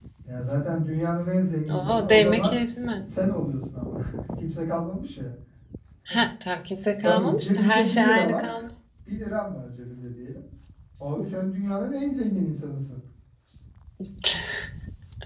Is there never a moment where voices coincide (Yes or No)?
No